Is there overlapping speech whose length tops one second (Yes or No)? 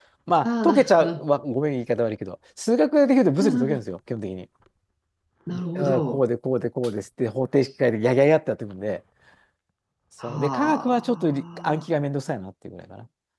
Yes